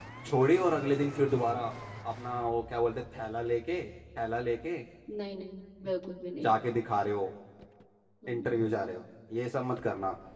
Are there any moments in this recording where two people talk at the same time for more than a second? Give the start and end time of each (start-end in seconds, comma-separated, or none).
none